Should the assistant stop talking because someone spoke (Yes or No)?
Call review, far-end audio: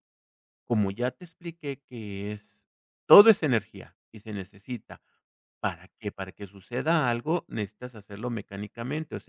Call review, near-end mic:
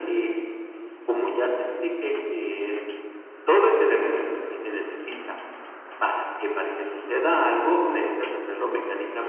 No